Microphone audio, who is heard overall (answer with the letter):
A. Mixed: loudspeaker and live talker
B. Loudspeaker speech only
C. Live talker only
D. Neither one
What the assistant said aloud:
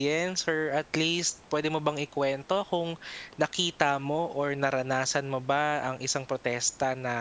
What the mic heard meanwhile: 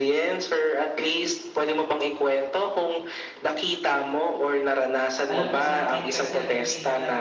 A